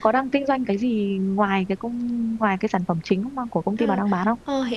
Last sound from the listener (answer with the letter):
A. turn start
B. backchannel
A